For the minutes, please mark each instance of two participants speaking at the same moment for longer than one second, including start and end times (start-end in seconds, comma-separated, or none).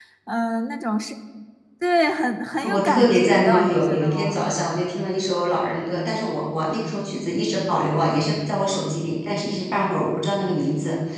2.7-4.4